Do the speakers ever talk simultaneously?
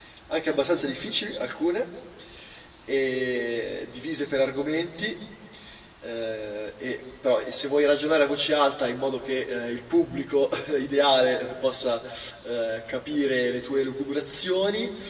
No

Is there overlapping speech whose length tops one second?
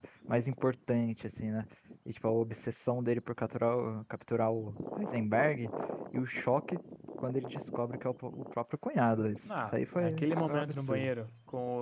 Yes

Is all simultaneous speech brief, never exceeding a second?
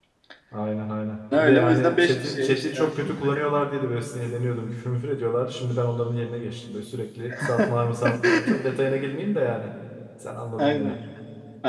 No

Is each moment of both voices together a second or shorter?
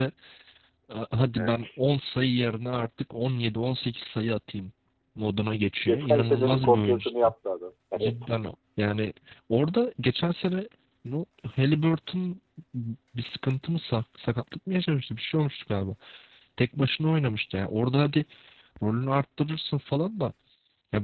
No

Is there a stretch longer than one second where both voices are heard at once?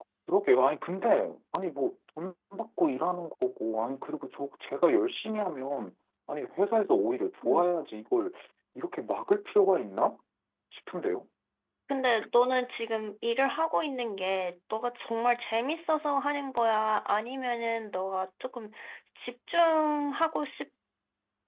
No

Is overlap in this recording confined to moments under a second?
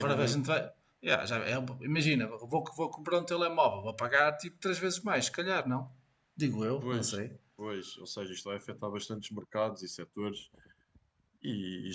Yes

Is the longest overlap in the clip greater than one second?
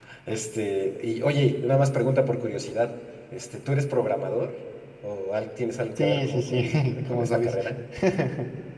Yes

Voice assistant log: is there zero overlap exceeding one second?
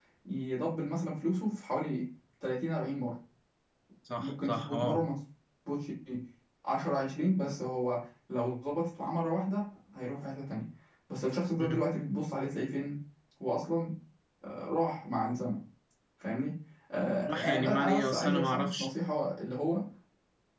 No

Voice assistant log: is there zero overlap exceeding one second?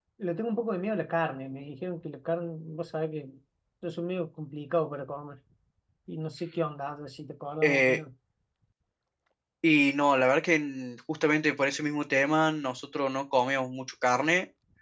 Yes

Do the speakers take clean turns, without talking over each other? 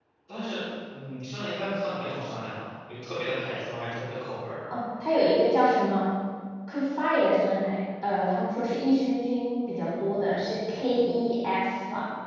Yes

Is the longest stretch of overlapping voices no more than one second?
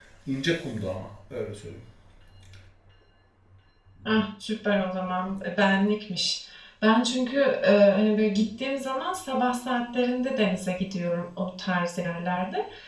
Yes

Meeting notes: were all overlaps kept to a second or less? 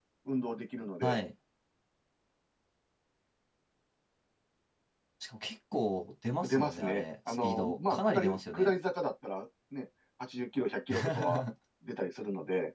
No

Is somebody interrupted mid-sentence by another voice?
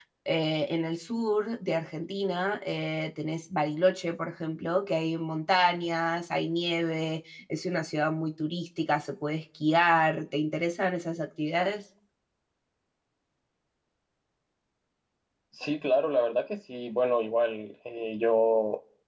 No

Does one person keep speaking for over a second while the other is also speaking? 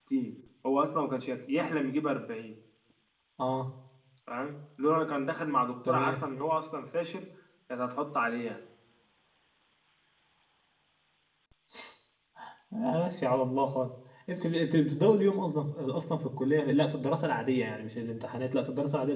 No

